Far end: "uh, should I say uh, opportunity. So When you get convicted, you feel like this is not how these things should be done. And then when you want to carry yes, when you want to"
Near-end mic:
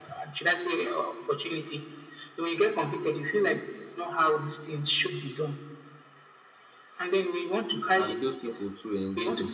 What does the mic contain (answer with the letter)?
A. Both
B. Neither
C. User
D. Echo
A